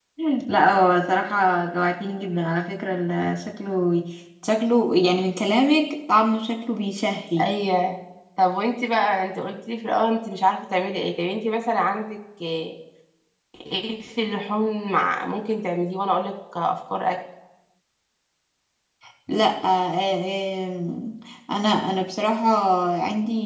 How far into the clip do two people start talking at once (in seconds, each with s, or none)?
none